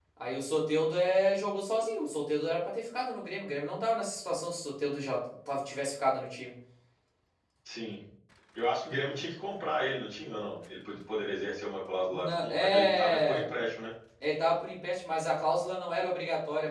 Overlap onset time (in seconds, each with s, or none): 12.1 s